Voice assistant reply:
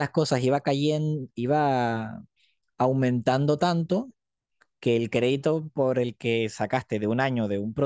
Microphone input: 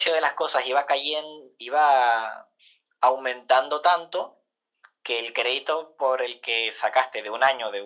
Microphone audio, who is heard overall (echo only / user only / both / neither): echo only